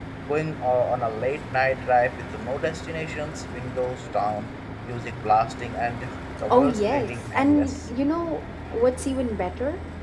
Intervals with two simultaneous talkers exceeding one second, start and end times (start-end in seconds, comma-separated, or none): 6.5-7.8